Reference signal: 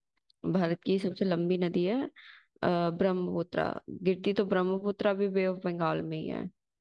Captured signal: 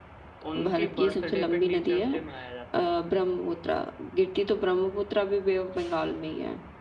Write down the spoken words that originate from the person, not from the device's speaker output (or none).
उनकी बर्थडे पे टीचर्स डे मनाया जाता है